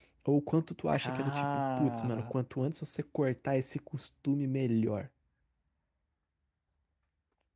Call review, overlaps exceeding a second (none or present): present